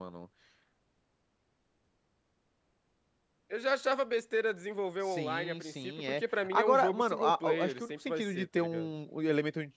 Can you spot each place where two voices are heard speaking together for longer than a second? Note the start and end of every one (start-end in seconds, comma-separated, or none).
5.1-8.9